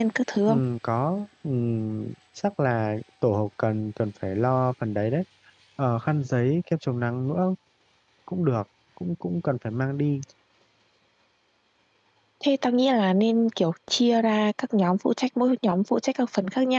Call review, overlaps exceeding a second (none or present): none